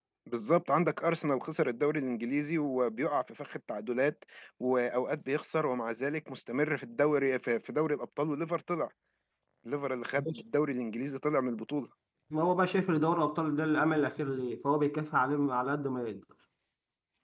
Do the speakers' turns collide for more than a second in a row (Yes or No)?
No